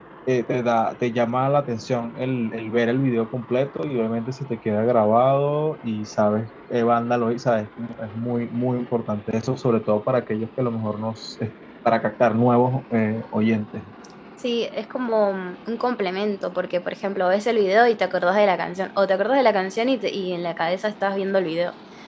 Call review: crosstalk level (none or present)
none